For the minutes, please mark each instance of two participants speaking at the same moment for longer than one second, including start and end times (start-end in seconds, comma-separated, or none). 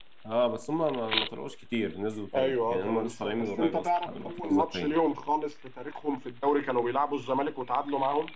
2.3-5.0